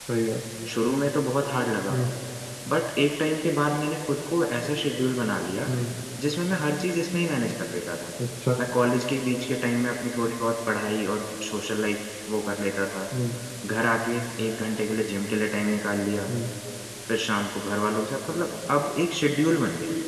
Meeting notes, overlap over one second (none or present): none